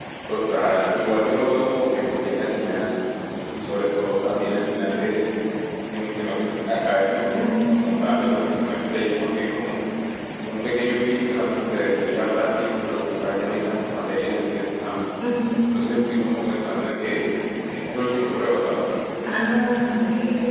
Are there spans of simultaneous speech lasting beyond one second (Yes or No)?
No